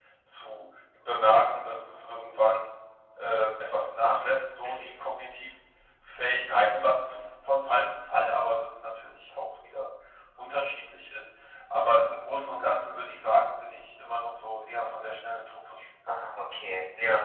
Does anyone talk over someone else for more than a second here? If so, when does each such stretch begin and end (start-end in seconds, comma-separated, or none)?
none